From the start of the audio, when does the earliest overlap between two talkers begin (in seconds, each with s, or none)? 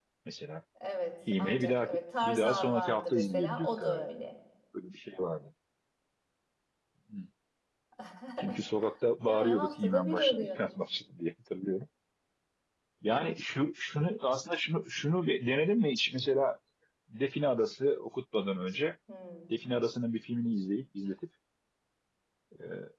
1.4 s